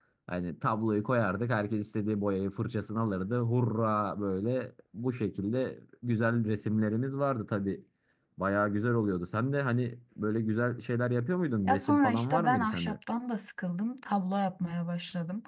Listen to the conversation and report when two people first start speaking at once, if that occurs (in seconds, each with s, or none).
11.7 s